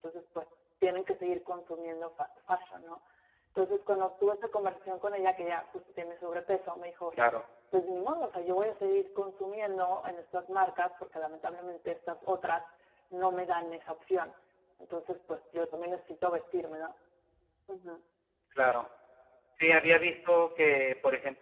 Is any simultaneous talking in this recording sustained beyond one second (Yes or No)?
No